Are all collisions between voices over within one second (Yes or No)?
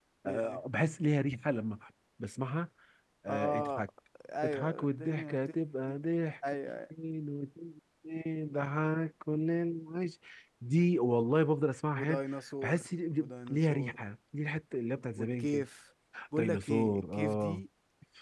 No